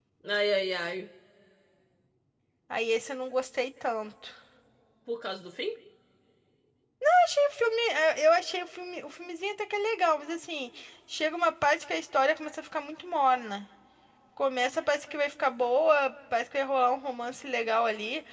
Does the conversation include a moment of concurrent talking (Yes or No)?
No